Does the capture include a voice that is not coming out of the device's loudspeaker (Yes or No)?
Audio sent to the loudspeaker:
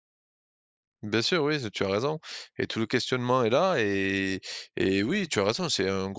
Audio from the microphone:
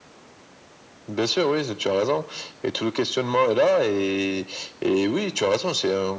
No